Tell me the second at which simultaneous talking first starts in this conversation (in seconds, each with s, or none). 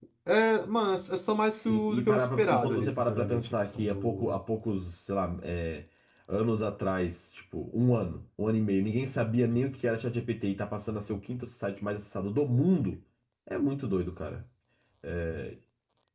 1.5 s